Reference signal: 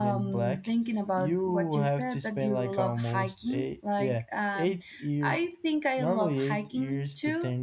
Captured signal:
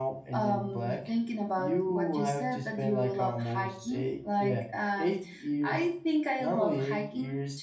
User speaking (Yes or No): No